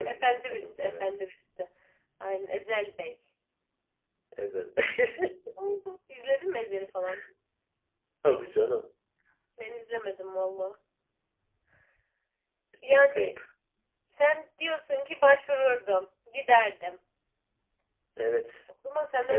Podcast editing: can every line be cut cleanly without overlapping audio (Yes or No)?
No